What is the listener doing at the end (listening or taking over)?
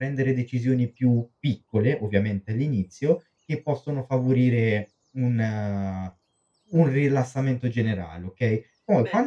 taking over